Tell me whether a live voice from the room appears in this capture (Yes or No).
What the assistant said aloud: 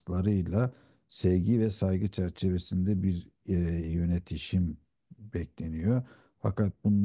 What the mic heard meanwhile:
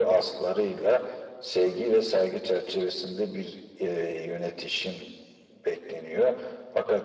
No